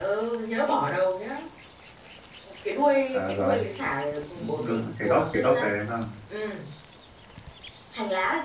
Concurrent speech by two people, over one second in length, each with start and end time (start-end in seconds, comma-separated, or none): 4.3-5.7